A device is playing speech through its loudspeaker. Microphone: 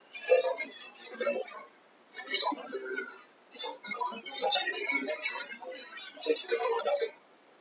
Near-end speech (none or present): none